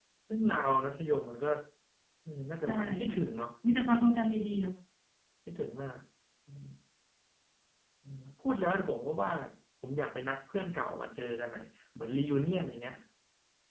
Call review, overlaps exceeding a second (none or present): none